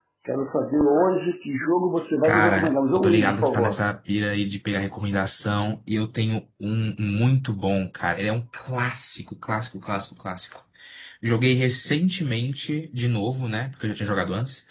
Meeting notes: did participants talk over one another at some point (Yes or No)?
Yes